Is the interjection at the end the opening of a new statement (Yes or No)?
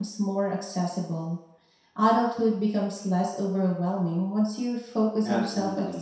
Yes